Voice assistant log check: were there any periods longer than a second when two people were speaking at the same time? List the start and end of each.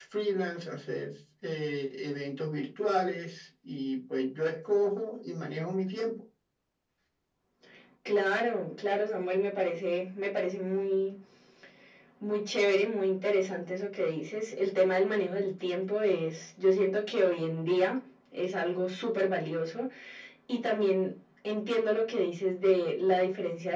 none

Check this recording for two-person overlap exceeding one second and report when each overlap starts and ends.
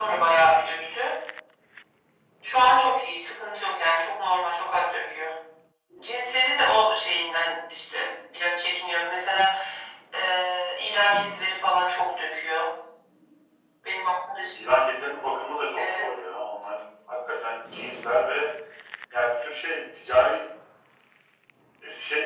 none

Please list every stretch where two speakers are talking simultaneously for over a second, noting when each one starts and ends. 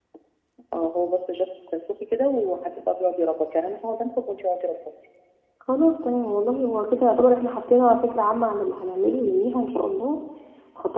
none

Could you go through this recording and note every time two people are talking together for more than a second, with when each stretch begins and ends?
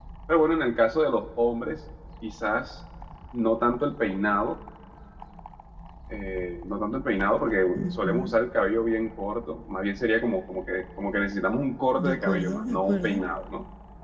12.0-13.2

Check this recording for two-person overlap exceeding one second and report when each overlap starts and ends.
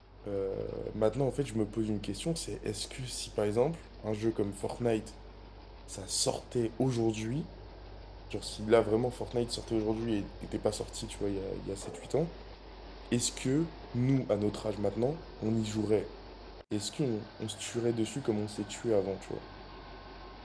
none

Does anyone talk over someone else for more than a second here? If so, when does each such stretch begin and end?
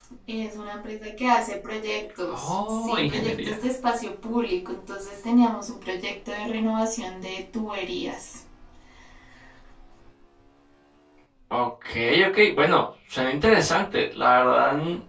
2.3-3.5

